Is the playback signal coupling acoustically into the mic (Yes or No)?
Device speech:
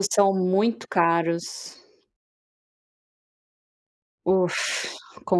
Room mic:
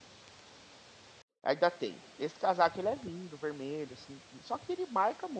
No